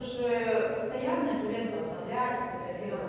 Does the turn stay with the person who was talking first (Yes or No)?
Yes